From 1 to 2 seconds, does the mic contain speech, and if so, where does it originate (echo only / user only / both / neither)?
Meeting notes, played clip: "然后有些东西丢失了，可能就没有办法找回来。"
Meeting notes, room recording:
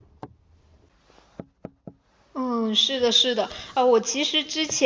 neither